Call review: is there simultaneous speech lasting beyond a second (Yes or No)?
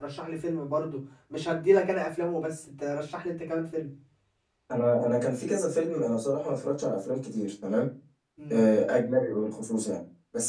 No